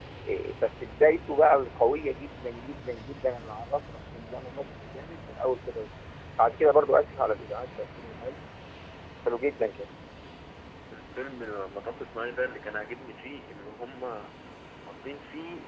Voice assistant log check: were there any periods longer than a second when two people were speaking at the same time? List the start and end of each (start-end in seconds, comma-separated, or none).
none